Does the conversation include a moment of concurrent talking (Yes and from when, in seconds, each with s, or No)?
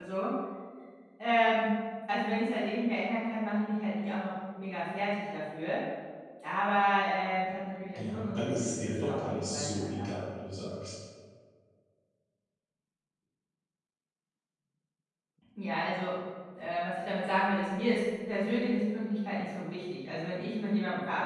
Yes, from 8.0 s